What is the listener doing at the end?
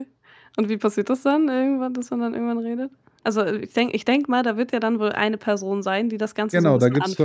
taking over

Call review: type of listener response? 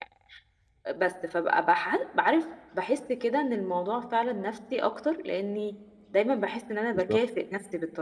listening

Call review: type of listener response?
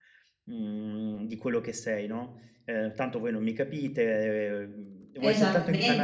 listening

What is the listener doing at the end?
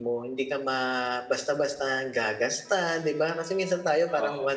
listening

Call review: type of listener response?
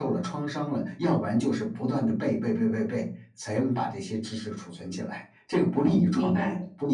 taking over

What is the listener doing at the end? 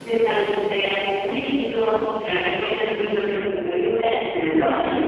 taking over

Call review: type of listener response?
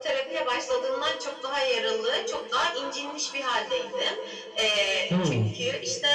listening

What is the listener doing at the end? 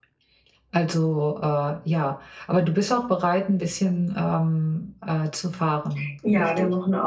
taking over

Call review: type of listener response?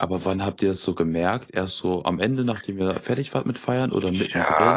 taking over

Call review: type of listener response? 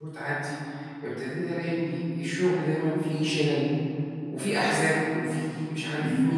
taking over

